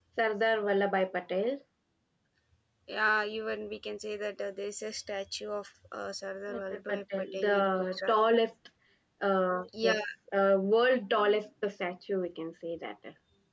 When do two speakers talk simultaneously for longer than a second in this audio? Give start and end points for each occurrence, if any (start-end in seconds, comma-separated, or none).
6.5-8.1